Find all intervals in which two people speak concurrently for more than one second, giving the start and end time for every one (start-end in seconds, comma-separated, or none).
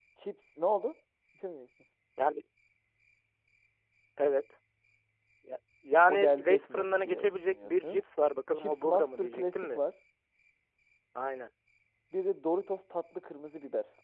6.1-8.0, 8.6-9.8